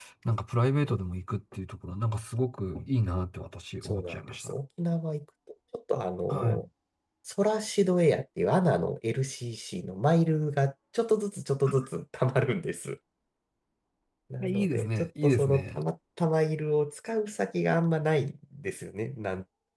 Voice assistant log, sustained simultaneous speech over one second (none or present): present